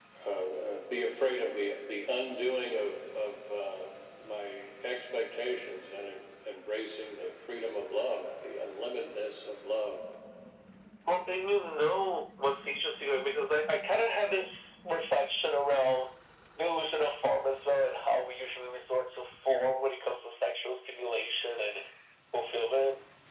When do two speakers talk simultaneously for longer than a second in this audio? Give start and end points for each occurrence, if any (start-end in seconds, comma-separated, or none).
none